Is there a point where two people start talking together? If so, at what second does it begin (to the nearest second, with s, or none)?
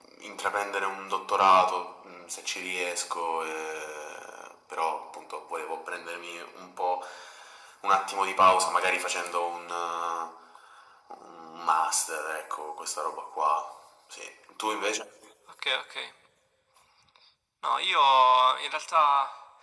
none